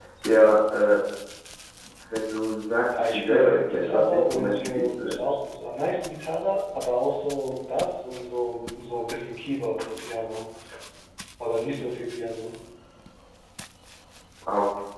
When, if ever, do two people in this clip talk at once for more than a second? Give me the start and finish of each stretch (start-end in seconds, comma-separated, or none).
3.1-5.2